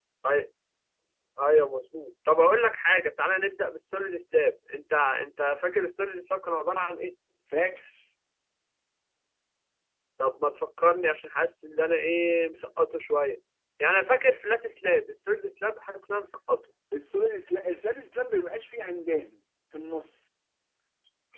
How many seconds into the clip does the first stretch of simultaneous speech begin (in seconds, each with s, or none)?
none